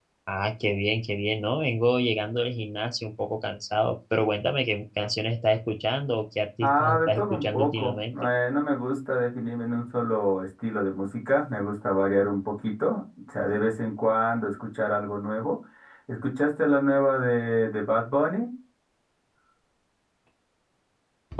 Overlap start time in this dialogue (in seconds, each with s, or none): 6.6 s